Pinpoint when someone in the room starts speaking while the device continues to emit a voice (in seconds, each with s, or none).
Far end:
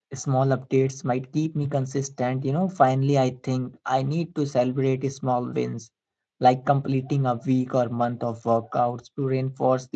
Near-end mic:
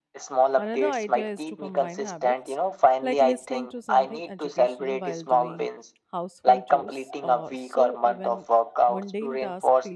0.6 s